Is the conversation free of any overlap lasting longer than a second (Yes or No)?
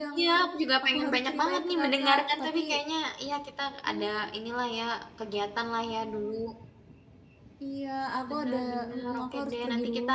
No